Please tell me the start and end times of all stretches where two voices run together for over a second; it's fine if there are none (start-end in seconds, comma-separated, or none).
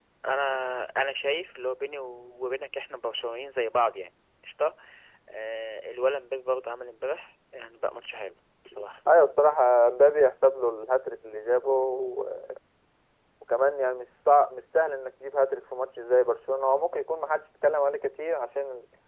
none